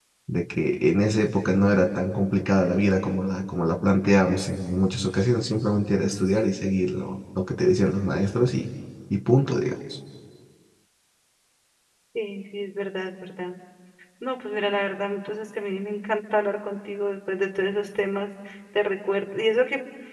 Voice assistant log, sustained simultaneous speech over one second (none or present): none